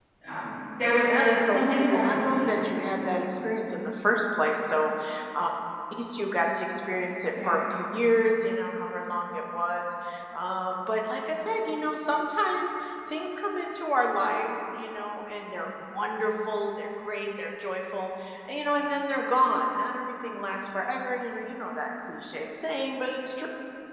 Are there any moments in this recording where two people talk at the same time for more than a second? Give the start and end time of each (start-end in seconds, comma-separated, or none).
1.0-2.6